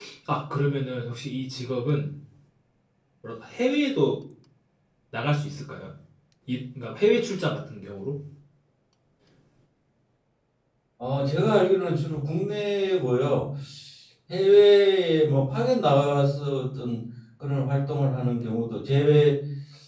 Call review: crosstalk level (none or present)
none